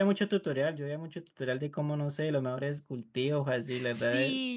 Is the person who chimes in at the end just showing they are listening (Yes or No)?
No